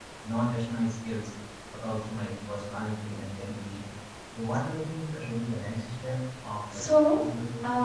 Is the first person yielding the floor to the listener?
Yes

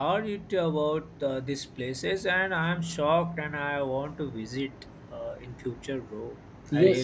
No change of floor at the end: No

